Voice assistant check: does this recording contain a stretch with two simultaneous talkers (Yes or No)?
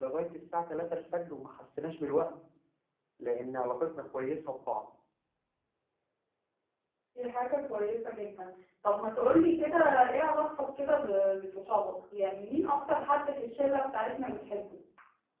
No